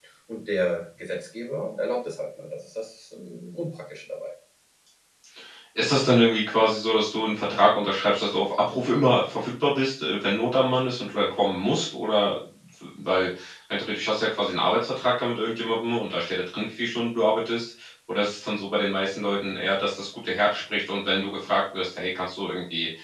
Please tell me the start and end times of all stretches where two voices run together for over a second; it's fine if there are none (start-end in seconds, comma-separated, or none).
none